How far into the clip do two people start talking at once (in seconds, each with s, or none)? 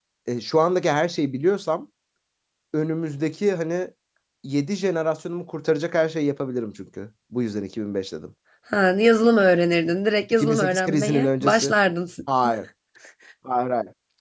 10.3 s